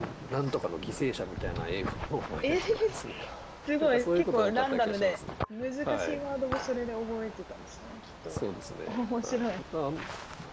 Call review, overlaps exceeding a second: present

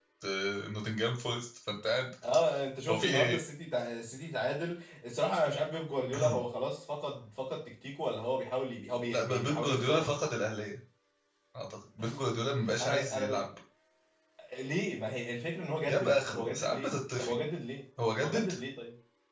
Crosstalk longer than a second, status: present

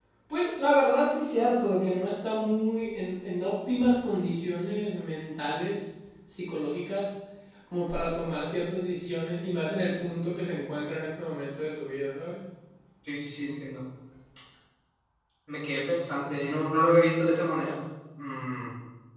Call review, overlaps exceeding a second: none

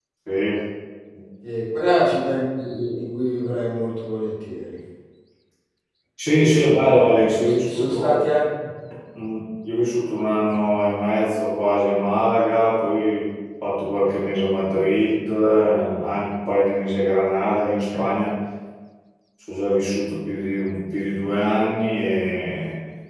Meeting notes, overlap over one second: present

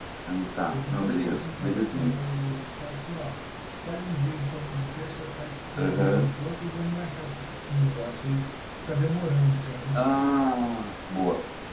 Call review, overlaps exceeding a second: present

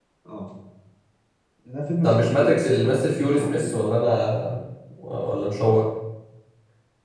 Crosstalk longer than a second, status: present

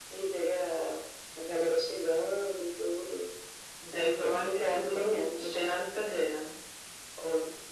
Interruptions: present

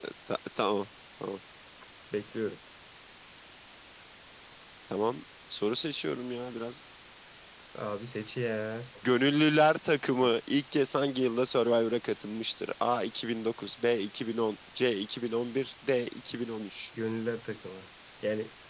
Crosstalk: none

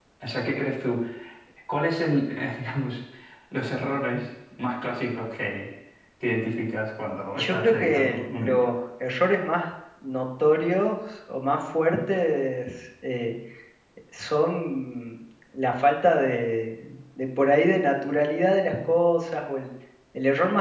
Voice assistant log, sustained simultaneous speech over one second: present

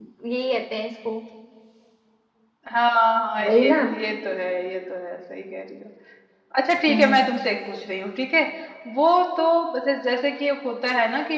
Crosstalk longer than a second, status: none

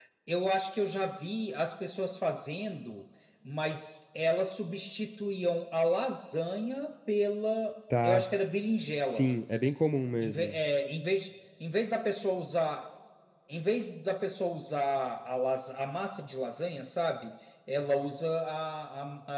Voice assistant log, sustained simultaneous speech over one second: none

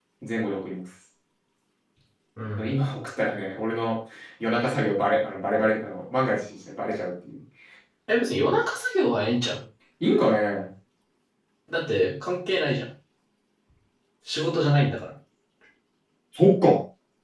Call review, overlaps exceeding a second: none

